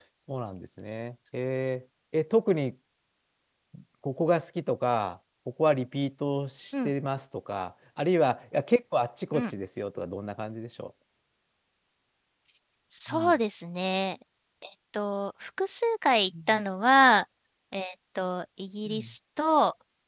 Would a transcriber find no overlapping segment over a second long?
Yes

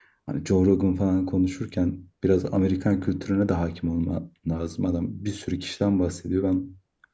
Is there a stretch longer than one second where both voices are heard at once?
No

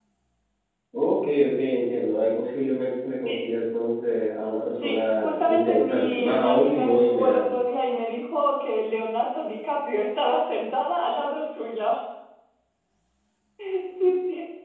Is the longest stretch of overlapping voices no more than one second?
No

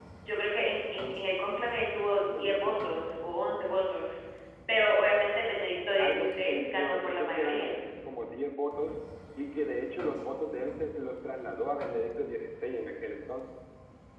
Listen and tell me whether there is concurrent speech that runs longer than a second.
Yes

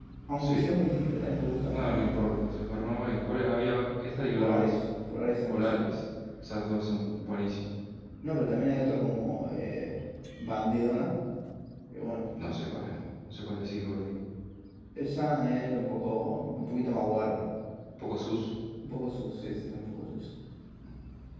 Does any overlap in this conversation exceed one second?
No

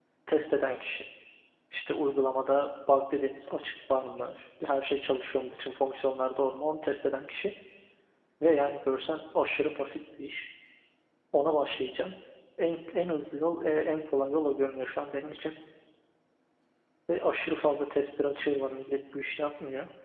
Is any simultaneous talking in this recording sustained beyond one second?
No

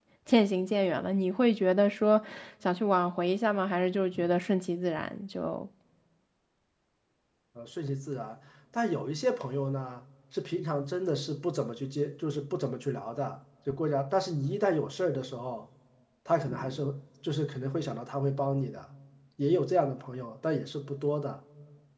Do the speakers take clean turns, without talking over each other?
Yes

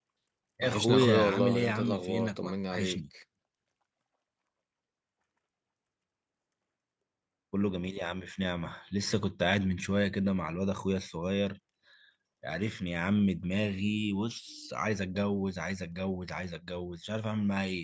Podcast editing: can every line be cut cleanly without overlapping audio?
No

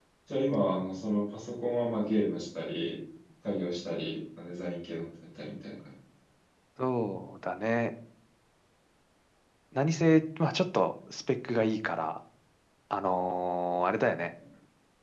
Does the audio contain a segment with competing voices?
No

